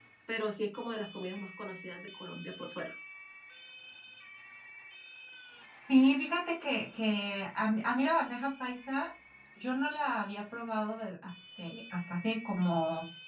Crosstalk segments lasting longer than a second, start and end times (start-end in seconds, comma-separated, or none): none